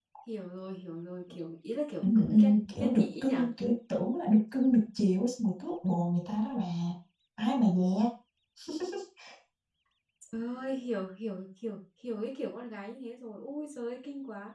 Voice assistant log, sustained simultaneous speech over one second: present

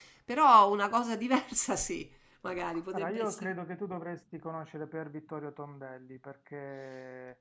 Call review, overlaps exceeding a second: none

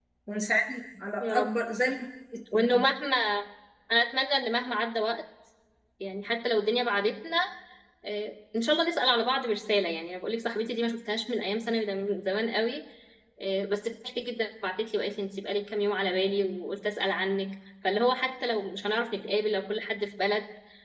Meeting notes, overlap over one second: none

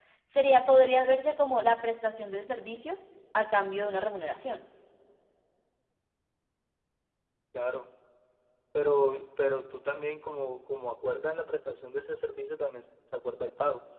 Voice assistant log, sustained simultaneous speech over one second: none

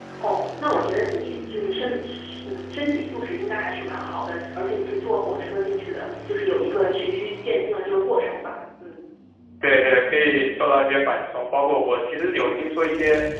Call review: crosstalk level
none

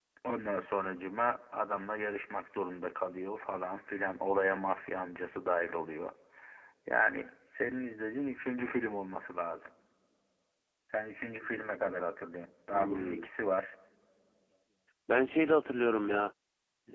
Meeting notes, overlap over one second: none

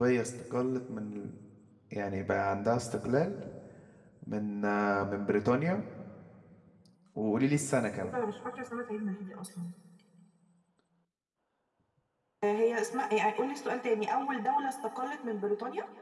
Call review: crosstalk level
none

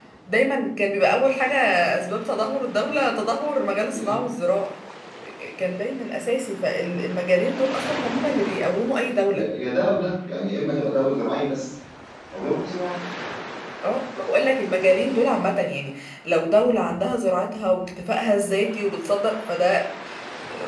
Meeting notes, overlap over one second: none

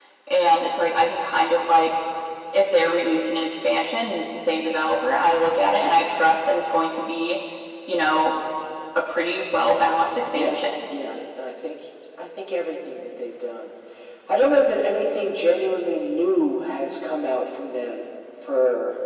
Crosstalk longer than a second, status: none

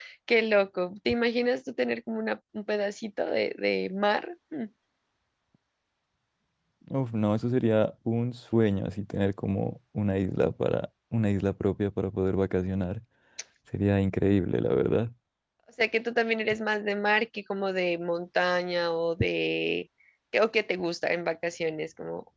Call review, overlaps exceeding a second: none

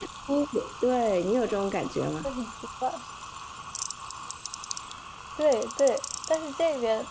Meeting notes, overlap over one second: none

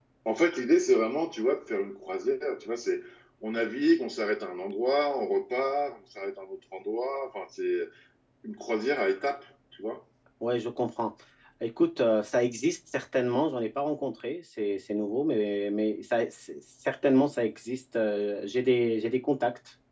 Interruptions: none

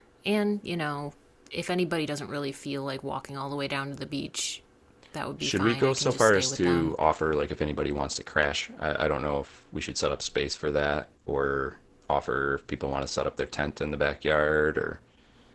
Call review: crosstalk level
present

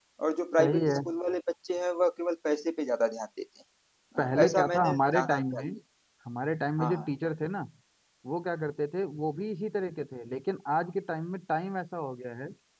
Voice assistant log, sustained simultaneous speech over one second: present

